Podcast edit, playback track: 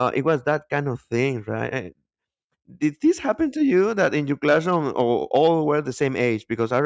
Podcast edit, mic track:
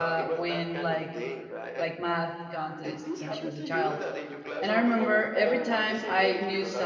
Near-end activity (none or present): present